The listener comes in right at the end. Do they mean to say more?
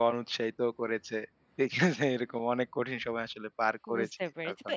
Yes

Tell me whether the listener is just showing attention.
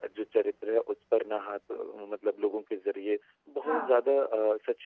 Yes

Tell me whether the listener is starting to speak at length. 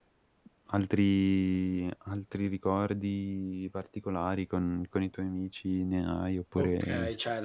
Yes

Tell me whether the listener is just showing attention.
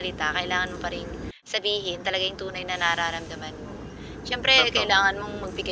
Yes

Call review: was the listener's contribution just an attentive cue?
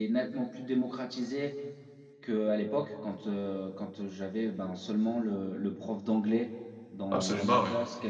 Yes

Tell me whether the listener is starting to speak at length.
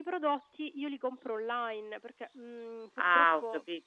Yes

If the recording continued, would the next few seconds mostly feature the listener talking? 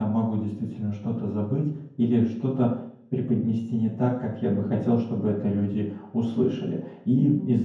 No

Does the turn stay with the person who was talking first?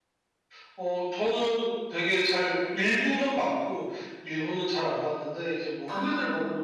Yes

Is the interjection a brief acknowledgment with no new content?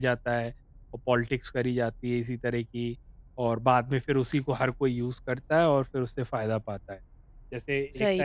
Yes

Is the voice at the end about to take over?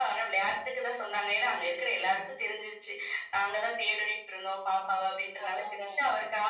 No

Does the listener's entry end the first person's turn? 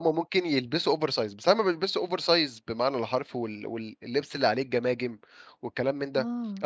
No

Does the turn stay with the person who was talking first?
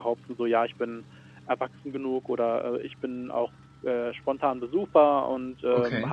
Yes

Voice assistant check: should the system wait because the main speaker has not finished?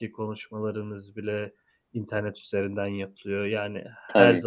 Yes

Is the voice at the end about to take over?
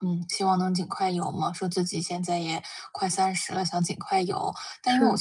No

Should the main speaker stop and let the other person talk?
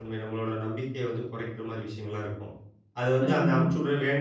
No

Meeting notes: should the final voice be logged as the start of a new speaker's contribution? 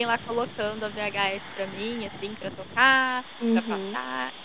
Yes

